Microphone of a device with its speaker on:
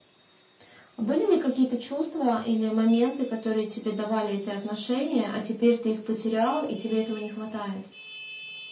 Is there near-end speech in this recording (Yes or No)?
No